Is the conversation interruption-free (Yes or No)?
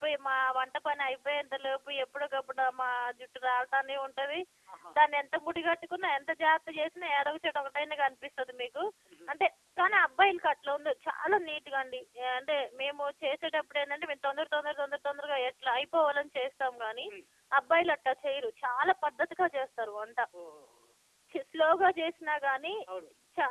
Yes